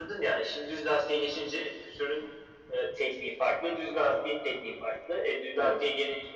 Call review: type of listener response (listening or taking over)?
listening